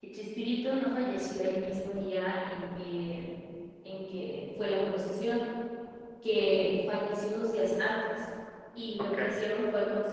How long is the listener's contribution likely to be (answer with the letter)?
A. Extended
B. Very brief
B